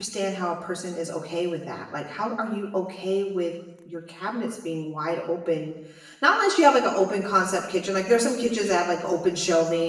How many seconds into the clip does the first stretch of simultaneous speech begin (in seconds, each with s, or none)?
none